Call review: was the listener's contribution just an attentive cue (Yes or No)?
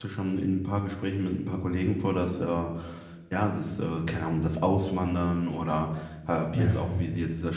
Yes